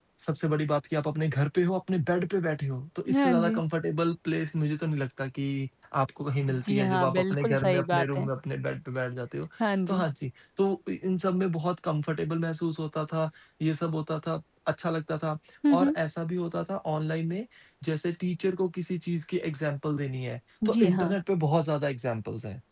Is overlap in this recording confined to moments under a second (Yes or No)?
No